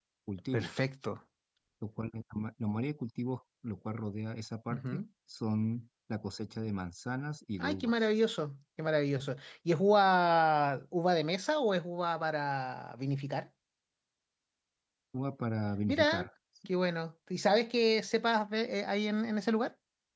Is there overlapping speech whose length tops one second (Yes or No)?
No